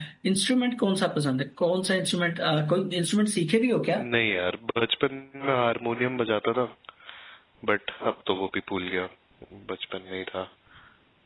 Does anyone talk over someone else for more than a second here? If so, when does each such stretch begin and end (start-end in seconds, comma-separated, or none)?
none